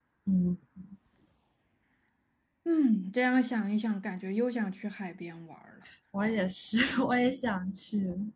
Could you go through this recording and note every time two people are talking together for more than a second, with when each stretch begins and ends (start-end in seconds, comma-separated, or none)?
none